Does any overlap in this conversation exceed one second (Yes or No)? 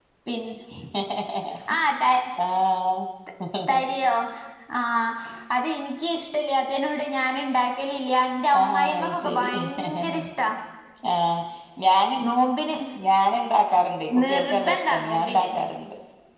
Yes